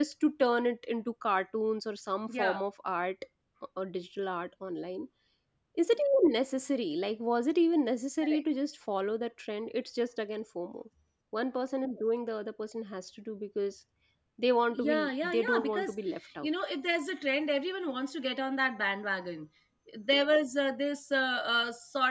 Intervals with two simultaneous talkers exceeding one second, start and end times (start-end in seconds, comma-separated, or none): 14.7-15.9